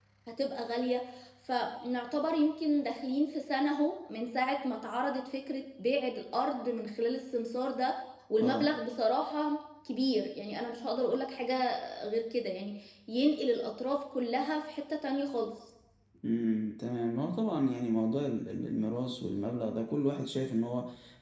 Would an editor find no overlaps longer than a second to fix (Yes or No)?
Yes